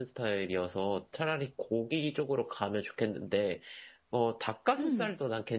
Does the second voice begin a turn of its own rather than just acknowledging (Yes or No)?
No